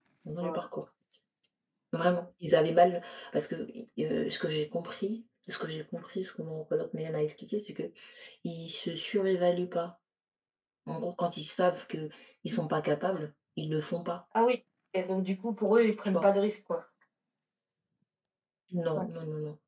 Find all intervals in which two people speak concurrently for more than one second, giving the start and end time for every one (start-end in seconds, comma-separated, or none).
none